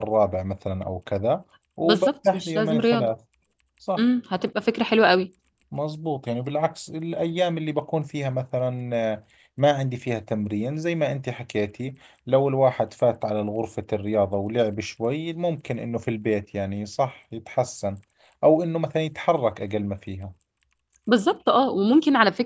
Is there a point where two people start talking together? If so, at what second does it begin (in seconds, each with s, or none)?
1.8 s